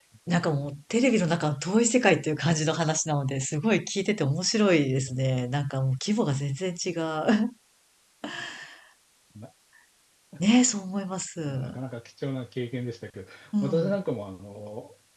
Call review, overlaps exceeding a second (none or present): none